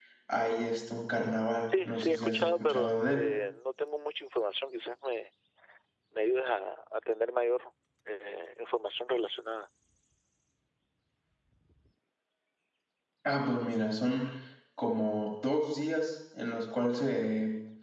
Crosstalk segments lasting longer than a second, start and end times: 1.7-3.3

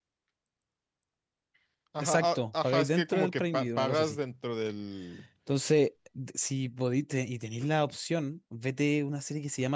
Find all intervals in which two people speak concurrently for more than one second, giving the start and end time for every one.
2.0-4.2

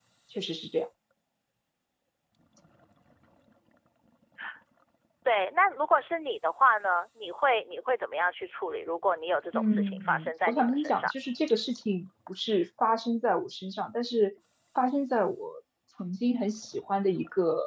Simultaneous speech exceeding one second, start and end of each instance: 9.5-11.1

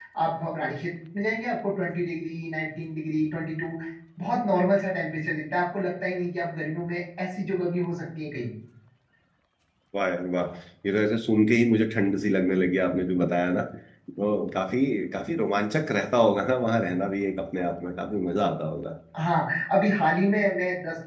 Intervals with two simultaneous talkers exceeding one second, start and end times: none

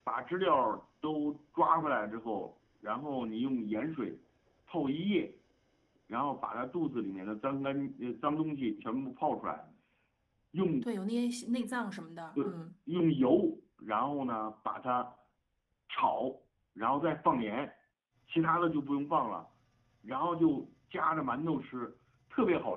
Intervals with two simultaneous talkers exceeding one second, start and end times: none

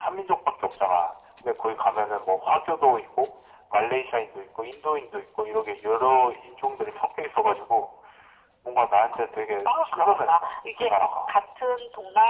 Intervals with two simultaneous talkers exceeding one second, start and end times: 9.7-10.9

